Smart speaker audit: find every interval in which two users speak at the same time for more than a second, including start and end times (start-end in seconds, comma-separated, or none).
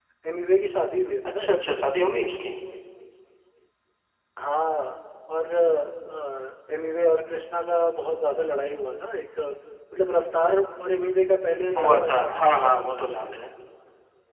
11.8-13.2